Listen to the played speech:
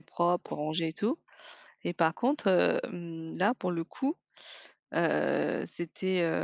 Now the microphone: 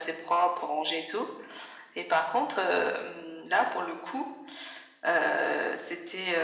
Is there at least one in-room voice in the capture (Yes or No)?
No